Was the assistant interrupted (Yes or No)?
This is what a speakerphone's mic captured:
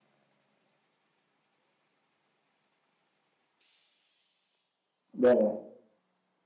Yes